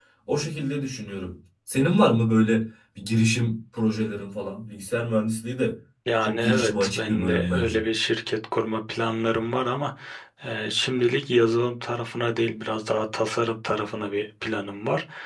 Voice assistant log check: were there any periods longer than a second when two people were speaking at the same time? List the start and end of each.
6.2-7.8

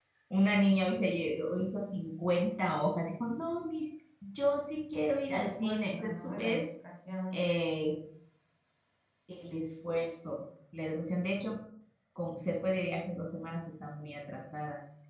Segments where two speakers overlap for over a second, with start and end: 5.3-6.7

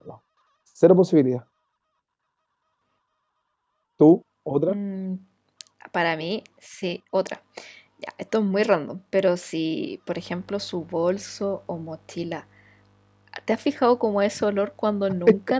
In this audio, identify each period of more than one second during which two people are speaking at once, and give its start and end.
none

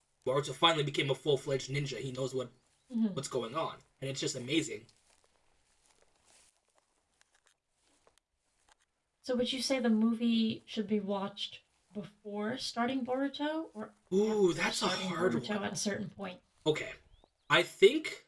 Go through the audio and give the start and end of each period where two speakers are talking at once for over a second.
14.2-15.6

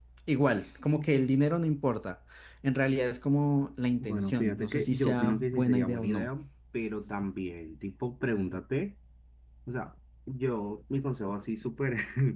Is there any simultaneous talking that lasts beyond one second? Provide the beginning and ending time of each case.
4.0-6.3

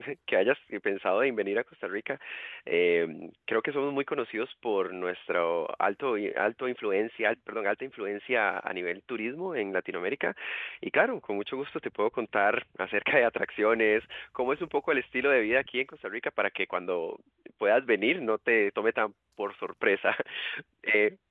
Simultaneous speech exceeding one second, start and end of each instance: none

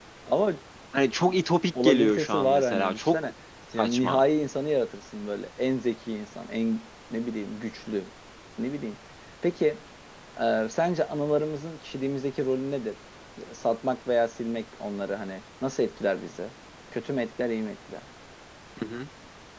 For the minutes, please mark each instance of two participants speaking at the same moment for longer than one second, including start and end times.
1.8-3.3

